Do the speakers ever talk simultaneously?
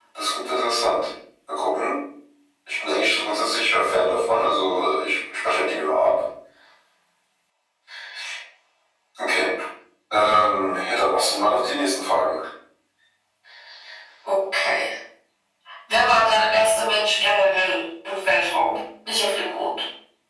No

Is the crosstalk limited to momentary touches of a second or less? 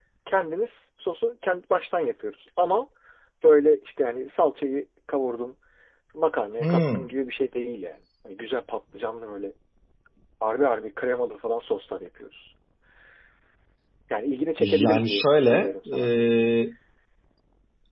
No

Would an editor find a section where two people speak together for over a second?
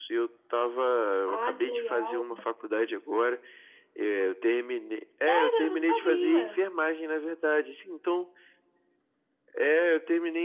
Yes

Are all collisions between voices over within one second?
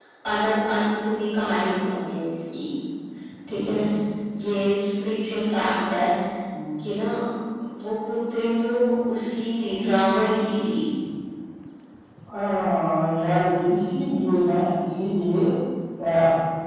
Yes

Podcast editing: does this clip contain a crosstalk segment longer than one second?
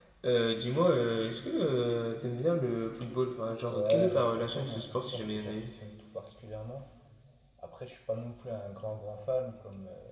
Yes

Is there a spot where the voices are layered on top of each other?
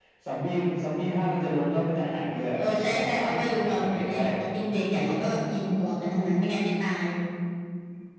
Yes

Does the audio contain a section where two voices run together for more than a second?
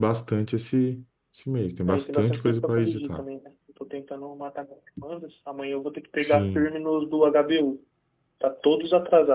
Yes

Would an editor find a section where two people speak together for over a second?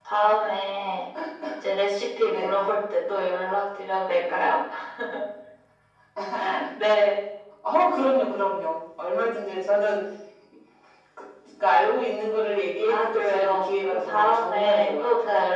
Yes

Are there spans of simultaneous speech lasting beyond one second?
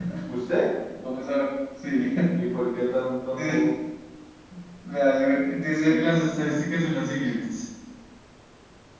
No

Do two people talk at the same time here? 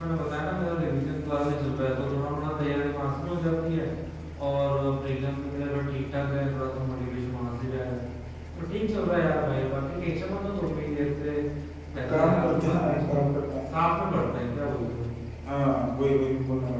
Yes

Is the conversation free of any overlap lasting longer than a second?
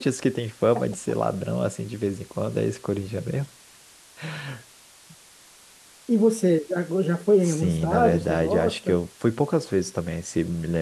No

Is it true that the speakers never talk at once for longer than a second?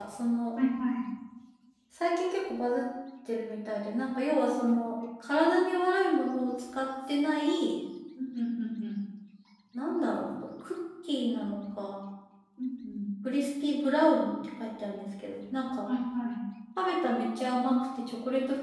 Yes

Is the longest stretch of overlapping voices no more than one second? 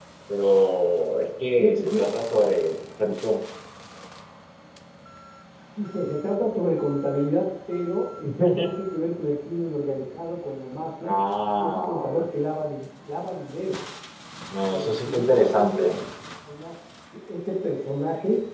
No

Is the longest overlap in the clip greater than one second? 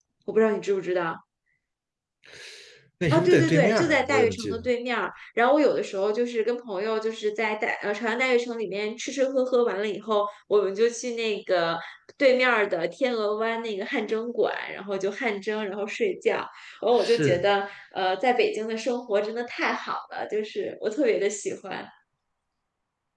Yes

